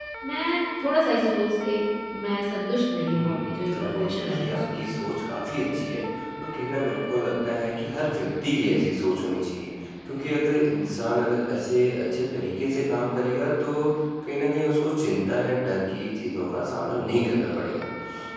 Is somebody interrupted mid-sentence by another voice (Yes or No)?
Yes